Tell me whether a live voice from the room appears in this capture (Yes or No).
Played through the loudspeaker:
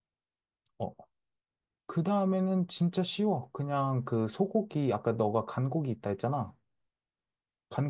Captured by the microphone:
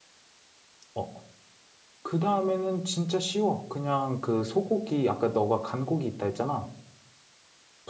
No